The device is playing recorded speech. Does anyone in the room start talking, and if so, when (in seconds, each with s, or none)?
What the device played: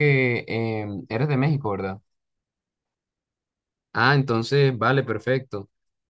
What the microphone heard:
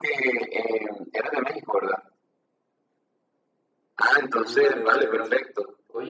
4.3 s